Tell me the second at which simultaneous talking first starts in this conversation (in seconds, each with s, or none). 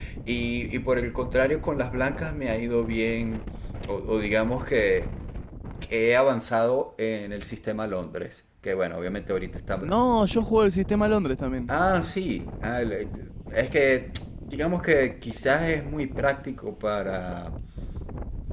none